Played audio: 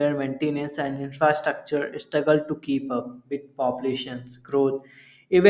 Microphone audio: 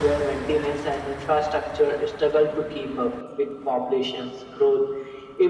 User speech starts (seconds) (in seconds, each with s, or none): none